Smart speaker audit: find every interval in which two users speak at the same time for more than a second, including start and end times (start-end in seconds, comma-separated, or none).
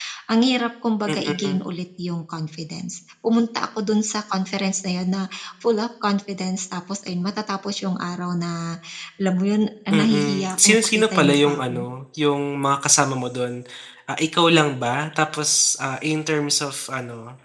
9.9-11.8